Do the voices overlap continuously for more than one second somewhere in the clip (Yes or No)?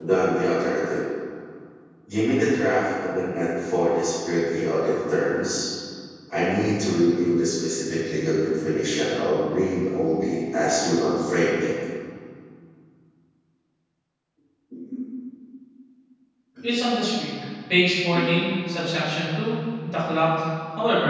No